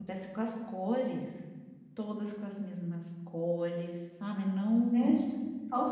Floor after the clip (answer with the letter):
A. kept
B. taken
B